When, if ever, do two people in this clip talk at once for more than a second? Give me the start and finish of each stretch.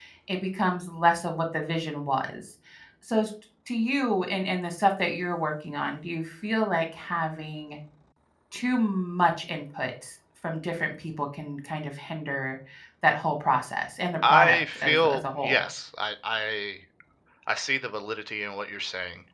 14.2-15.6

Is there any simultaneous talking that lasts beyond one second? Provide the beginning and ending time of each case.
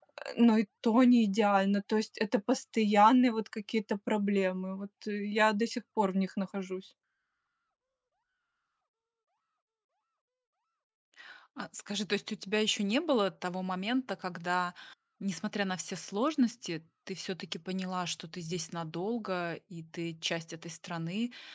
none

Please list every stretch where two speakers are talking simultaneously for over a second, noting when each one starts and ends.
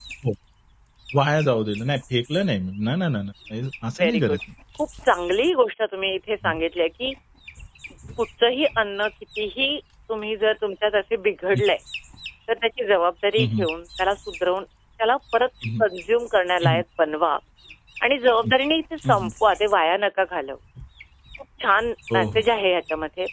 none

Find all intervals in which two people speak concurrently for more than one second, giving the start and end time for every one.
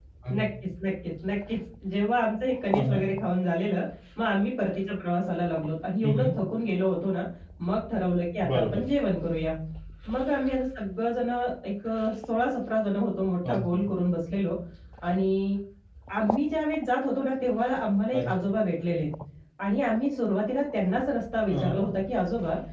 none

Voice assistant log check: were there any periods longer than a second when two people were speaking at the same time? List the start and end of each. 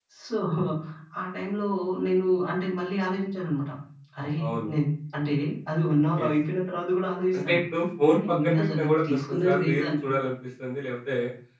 8.1-9.9

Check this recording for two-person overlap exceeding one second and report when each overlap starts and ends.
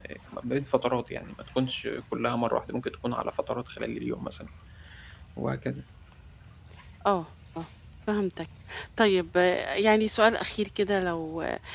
none

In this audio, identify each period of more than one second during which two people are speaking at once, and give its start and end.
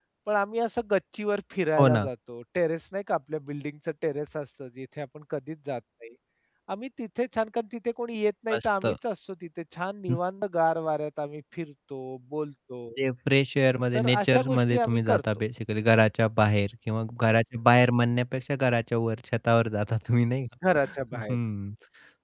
14.0-15.2

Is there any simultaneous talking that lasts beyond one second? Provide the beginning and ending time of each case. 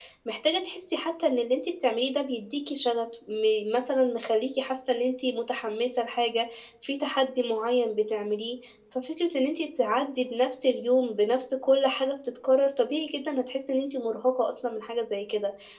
none

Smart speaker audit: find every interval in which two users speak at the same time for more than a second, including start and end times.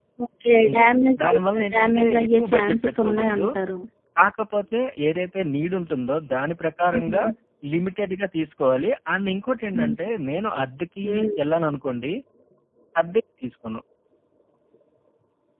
0.7-3.5

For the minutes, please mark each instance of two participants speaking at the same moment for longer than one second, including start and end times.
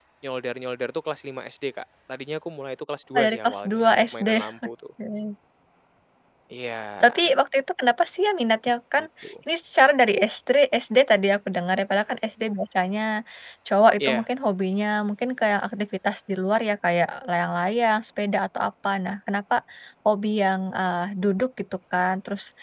3.2-4.4

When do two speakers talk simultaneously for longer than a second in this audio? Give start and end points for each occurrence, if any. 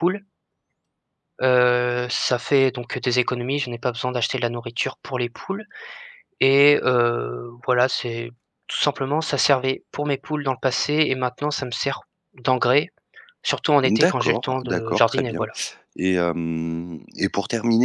13.8-15.4

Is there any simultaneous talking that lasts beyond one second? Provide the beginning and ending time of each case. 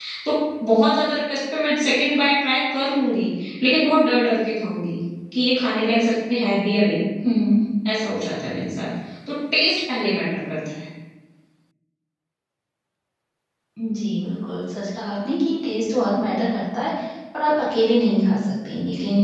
none

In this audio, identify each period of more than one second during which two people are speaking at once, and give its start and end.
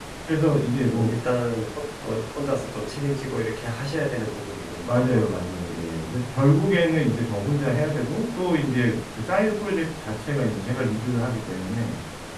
none

